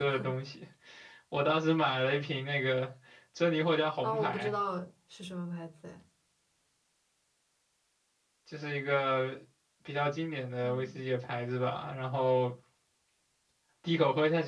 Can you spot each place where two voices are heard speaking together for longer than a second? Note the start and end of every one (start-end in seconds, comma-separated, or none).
none